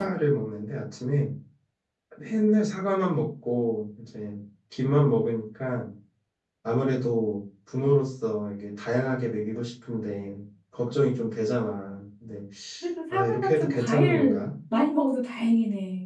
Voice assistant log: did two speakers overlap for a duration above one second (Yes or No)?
Yes